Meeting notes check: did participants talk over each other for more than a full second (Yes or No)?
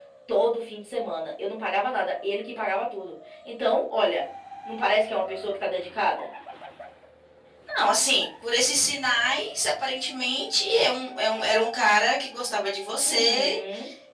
No